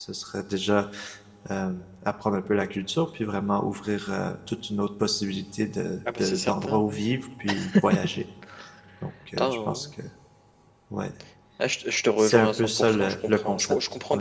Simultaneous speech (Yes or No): Yes